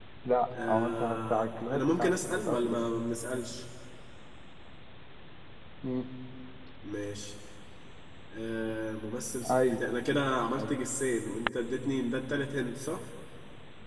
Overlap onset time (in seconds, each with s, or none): 0.7 s